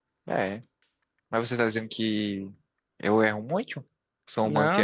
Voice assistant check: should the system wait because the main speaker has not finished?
No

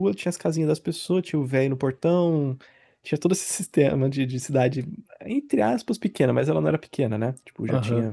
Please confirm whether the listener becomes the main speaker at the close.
Yes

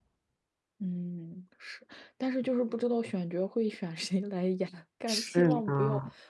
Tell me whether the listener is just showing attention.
Yes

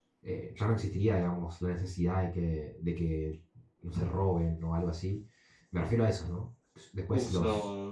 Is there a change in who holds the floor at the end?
Yes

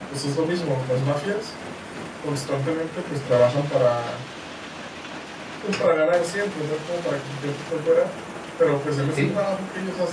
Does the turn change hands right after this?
No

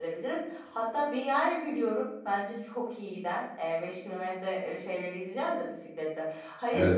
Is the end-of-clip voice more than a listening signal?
No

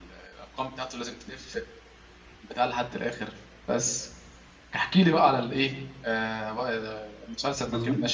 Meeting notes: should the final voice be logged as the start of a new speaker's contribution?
Yes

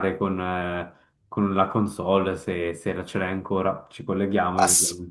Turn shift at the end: Yes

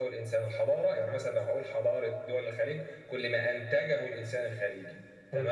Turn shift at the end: No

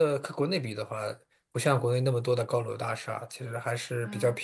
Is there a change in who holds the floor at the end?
No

